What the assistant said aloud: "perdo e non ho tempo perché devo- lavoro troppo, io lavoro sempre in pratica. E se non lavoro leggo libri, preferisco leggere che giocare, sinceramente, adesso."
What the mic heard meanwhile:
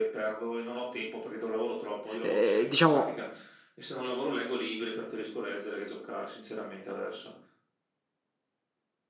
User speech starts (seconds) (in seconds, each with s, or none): 2.2 s